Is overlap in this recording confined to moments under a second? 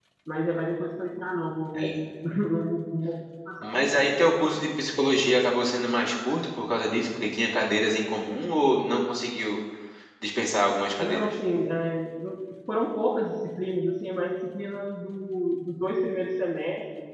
Yes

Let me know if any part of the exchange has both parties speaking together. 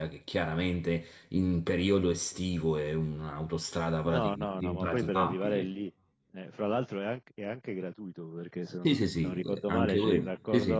Yes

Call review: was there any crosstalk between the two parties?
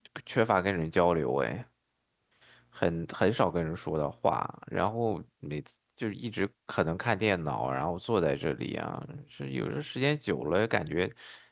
No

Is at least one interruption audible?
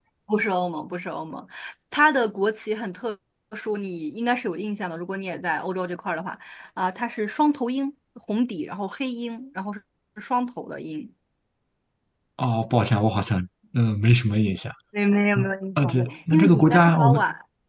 Yes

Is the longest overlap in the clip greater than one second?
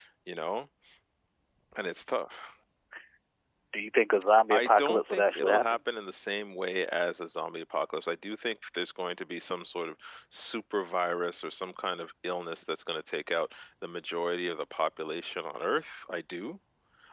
Yes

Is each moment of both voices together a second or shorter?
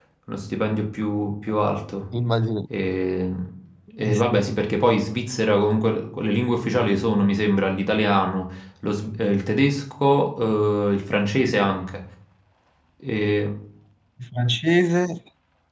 Yes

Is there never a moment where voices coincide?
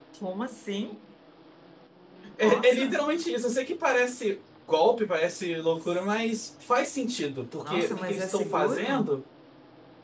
No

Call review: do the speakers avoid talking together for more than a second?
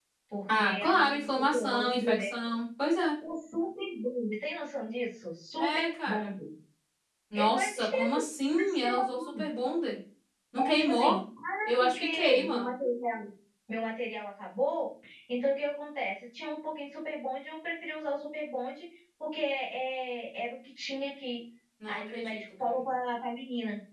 No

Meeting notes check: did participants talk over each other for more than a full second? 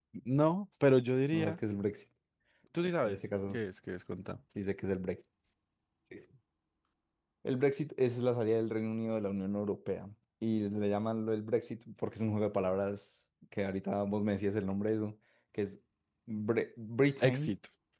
No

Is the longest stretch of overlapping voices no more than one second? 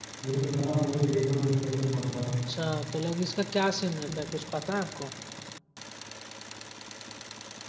Yes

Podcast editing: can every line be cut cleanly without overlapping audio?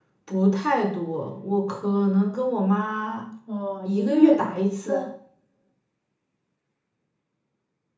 No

